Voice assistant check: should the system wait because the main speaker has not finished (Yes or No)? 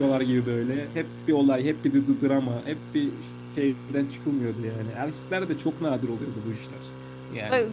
Yes